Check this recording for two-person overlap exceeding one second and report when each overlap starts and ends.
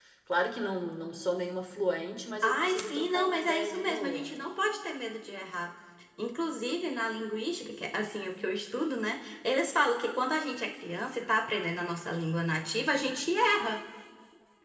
2.4-4.3

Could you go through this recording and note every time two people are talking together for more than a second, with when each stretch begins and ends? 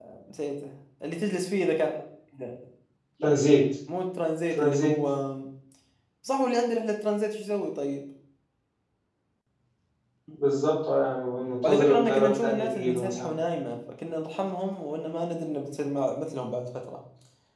11.6-13.3

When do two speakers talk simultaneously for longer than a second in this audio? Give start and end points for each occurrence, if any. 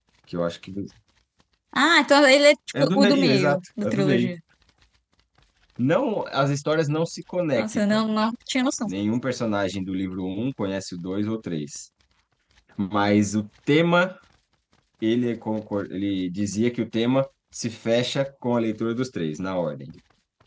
2.8-4.3

